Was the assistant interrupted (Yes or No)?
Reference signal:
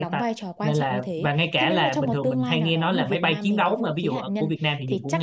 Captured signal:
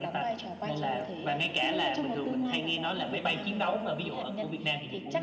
Yes